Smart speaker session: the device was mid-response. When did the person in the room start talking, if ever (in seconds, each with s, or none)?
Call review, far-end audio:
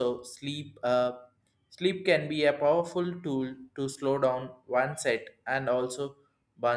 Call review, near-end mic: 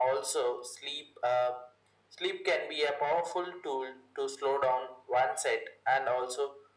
none